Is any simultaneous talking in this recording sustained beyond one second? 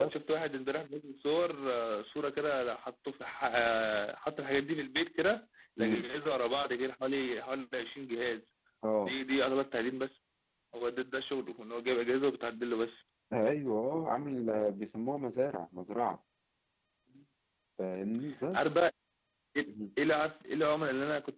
No

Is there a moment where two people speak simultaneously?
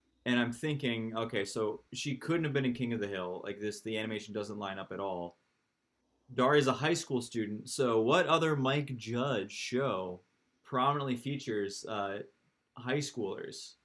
No

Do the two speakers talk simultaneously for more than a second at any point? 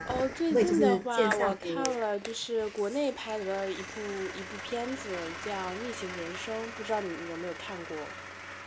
Yes, from 0.5 s

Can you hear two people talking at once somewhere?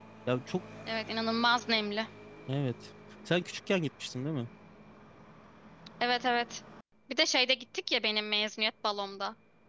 No

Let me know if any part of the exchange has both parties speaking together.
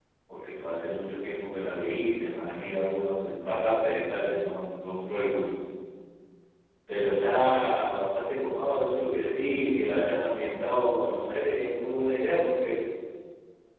No

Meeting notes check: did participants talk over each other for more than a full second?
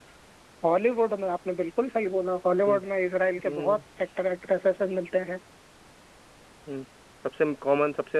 No

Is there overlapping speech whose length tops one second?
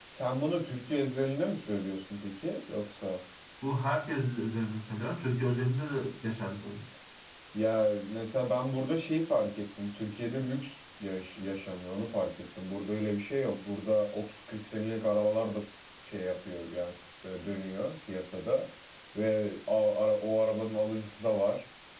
No

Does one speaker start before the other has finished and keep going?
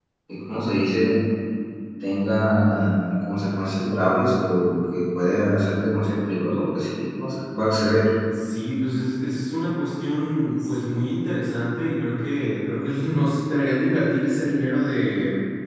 No

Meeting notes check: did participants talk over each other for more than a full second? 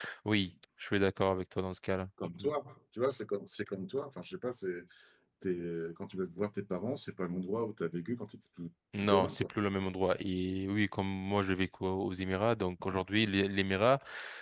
No

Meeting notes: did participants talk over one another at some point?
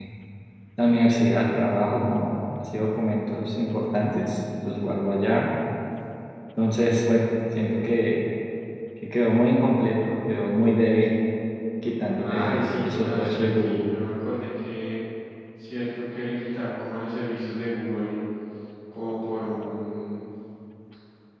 Yes, from 12.2 s

